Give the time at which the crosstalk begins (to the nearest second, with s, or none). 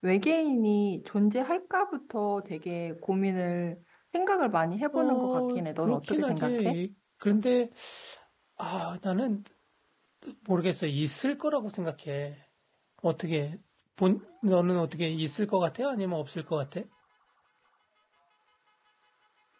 5 s